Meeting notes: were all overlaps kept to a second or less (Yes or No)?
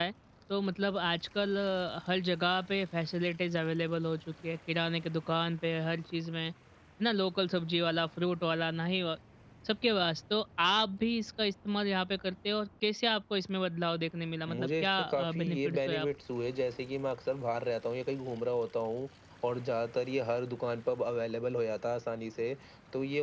No